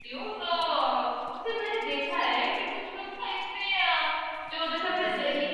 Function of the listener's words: listening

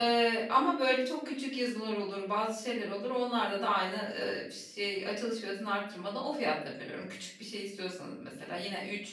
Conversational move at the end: listening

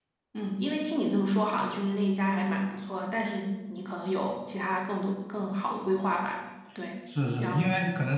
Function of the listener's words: taking over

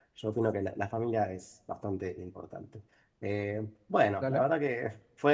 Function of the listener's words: listening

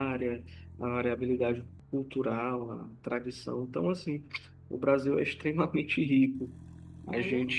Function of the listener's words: listening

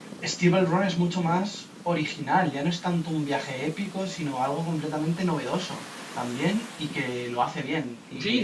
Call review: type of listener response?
taking over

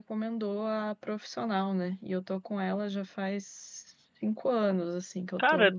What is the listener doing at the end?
taking over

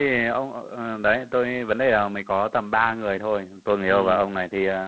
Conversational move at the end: listening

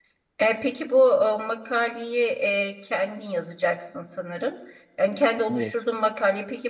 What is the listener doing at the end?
listening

